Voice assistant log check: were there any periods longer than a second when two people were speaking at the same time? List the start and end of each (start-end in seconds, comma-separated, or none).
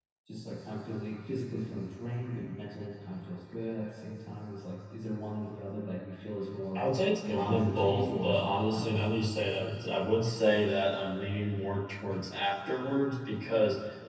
7.3-9.1